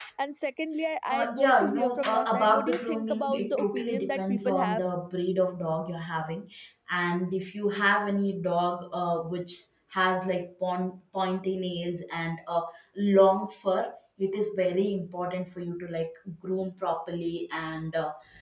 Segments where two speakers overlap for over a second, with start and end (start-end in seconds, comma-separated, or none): 1.1-4.6